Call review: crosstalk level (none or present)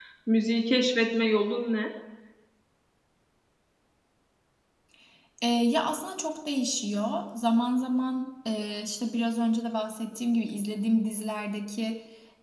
none